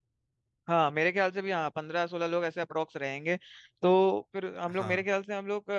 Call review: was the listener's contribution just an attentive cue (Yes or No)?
Yes